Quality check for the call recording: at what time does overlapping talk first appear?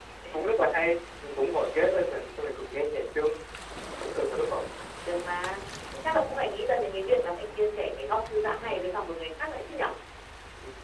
none

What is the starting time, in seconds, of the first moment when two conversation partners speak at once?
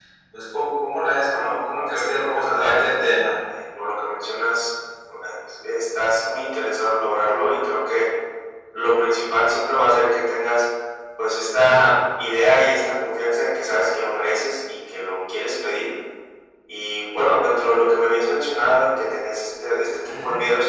1.3 s

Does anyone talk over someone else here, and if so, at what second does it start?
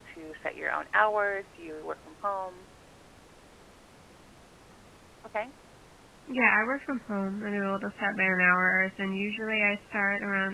none

